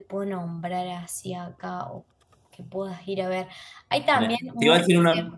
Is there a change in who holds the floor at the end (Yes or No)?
Yes